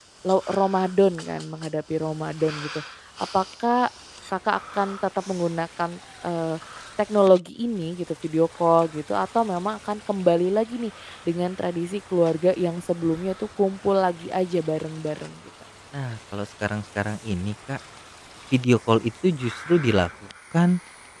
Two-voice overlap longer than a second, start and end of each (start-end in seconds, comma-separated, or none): none